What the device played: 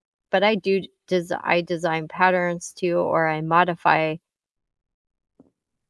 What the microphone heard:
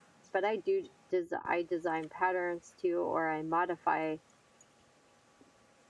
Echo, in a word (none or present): present